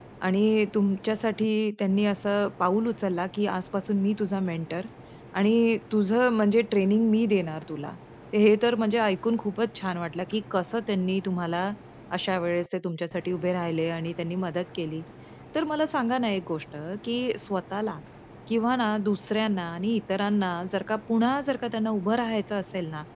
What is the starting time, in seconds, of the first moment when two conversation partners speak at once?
none

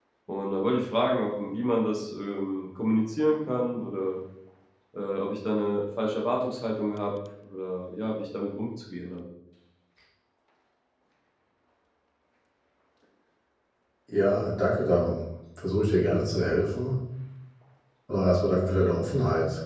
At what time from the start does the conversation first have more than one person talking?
none

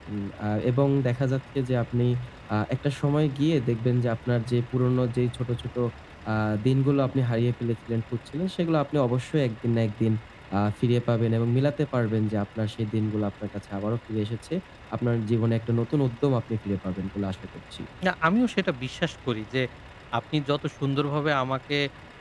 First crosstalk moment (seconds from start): none

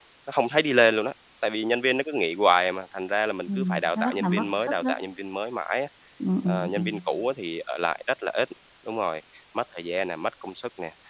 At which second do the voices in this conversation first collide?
3.5 s

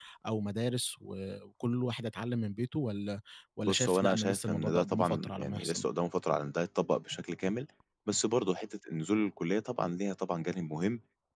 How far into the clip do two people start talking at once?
3.6 s

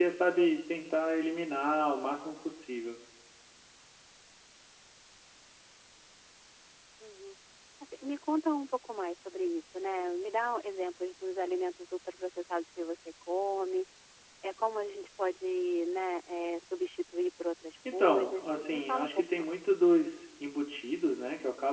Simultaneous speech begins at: 18.0 s

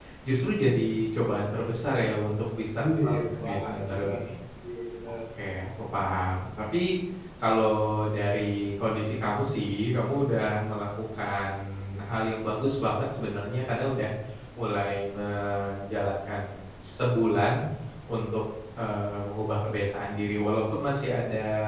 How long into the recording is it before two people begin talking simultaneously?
2.8 s

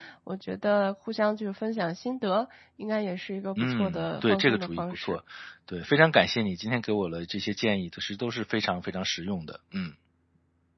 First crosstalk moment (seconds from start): 3.6 s

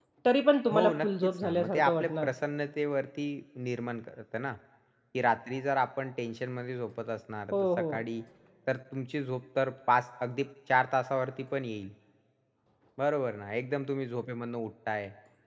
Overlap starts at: 0.7 s

